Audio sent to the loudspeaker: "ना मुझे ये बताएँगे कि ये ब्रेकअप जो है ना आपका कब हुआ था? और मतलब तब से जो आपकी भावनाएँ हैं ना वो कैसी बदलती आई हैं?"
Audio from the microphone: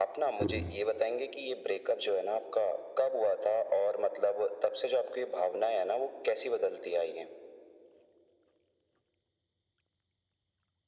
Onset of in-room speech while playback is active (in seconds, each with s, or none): 0.4 s